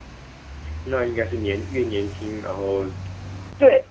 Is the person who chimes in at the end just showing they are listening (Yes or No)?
No